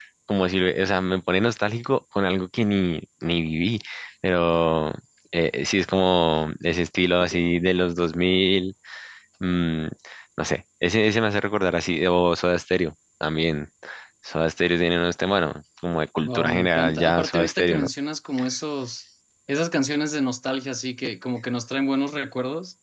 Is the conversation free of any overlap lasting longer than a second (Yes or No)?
No